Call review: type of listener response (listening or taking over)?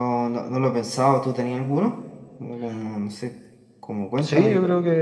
taking over